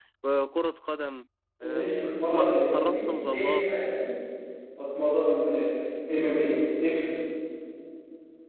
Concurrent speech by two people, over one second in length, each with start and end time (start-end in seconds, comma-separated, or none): 2.3-3.8